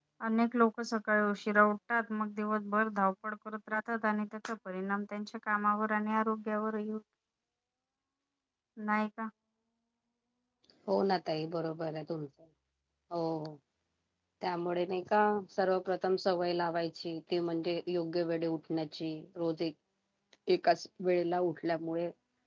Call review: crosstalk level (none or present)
none